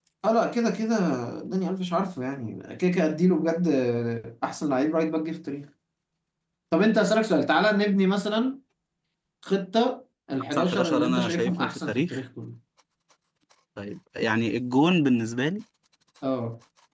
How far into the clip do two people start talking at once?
10.5 s

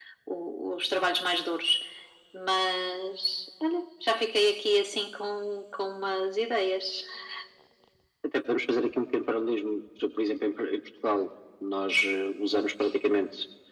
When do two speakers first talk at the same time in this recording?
none

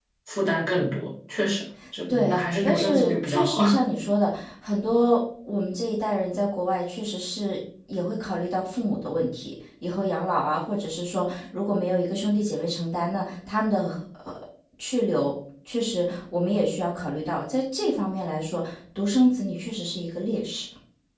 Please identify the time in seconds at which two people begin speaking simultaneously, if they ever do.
2.1 s

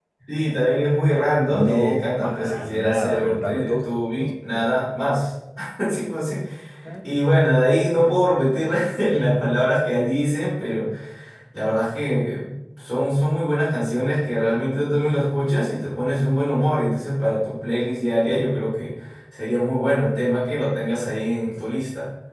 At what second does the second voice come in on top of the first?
1.5 s

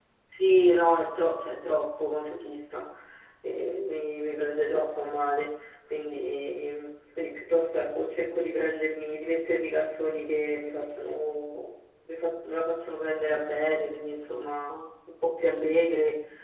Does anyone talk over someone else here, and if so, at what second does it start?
none

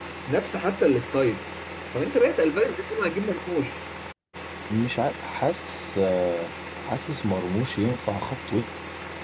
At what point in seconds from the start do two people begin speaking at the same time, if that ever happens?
none

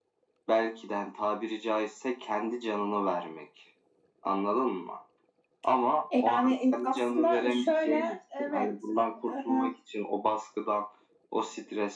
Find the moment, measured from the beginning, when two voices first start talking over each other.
6.2 s

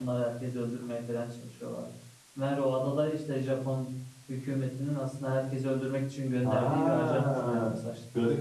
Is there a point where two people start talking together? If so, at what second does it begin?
6.4 s

